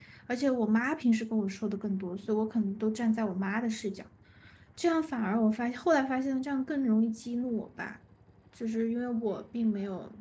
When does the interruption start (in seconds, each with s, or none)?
none